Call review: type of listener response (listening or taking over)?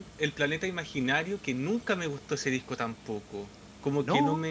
listening